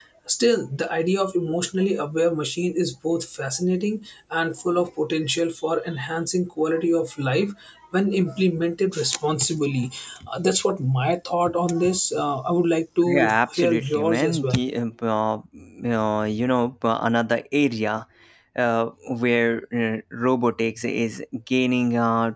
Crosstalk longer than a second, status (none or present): present